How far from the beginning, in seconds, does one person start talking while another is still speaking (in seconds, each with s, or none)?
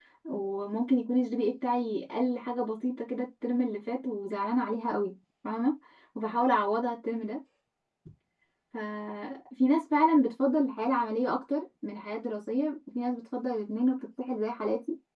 none